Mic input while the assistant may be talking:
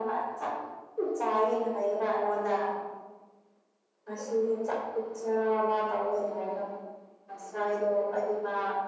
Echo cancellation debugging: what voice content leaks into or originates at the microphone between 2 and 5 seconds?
echo only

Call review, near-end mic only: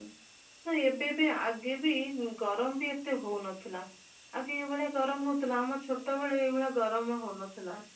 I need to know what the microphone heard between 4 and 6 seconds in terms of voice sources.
user only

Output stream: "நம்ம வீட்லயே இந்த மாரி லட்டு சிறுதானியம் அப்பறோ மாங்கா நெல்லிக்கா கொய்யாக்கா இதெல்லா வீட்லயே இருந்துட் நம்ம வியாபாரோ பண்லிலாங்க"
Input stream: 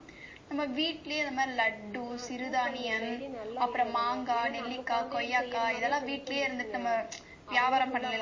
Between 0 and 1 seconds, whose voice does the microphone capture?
echo only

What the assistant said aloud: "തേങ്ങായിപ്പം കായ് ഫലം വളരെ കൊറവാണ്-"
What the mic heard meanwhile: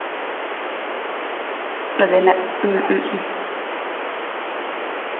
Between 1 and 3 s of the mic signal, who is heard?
user only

